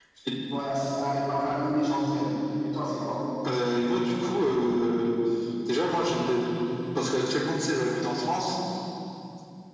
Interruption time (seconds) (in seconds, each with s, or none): none